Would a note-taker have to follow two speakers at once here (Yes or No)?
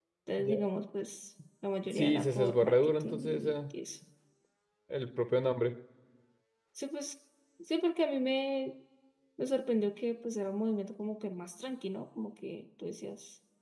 Yes